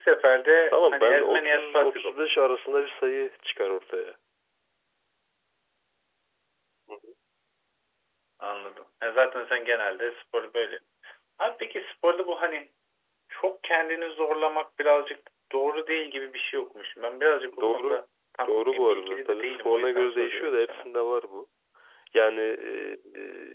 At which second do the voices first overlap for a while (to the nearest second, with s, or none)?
1 s